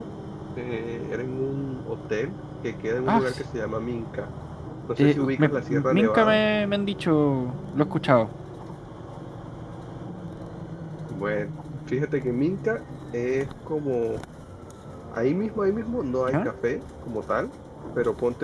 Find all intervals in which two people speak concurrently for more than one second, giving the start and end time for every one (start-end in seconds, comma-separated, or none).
5.0-6.4